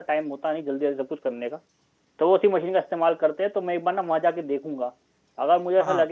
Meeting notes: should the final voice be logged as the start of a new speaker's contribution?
No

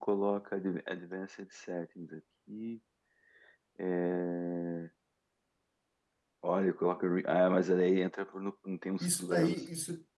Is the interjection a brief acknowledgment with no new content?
No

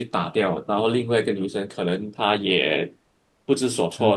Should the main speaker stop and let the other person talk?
No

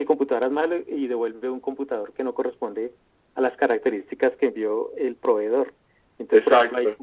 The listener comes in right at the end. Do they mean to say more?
No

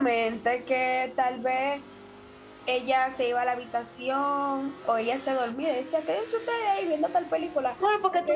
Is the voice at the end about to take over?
Yes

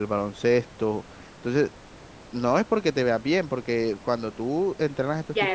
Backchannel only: No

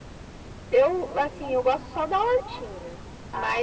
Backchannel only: Yes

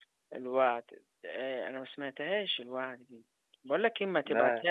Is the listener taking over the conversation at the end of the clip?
No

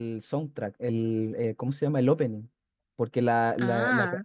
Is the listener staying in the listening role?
Yes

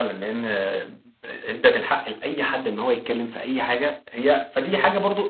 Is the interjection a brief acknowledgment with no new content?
Yes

